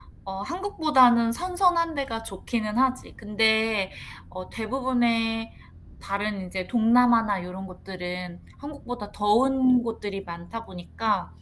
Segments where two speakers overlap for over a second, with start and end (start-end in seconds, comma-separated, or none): none